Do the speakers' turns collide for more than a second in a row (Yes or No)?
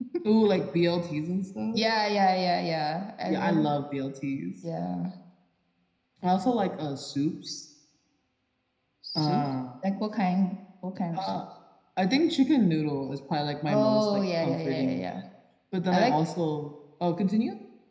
Yes